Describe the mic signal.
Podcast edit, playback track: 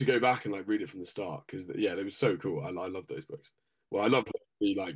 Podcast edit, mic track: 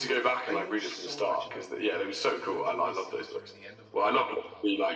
both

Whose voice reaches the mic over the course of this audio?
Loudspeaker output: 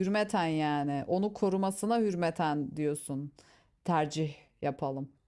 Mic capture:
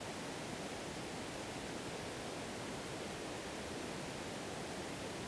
neither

